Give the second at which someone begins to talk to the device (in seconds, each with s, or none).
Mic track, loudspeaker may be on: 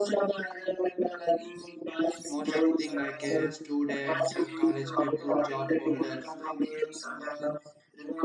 2.2 s